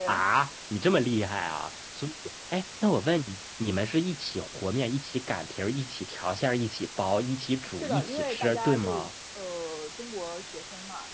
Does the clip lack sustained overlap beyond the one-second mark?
No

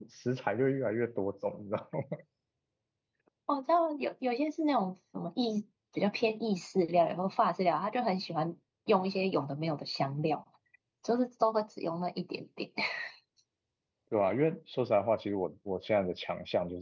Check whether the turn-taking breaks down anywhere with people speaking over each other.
No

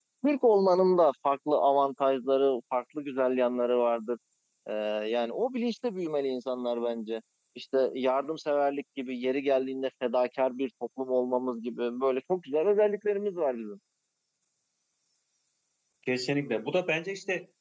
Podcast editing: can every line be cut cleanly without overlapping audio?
Yes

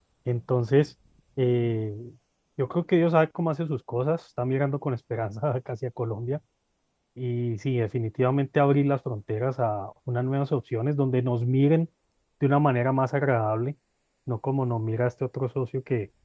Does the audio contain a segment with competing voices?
No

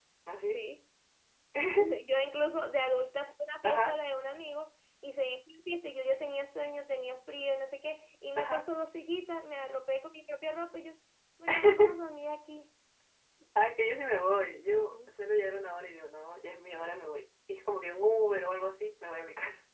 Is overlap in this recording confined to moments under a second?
Yes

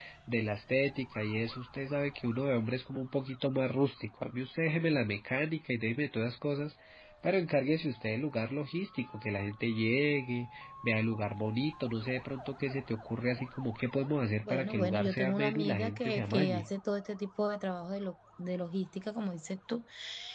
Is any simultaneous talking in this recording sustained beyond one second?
Yes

